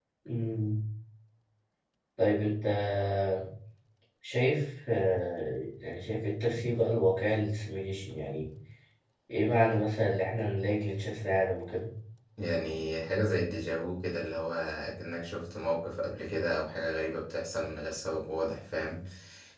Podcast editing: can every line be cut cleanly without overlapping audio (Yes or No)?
Yes